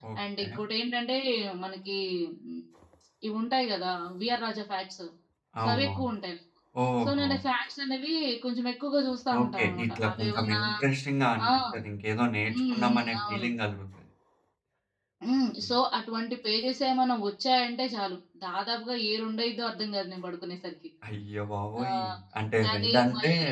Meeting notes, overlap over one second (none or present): present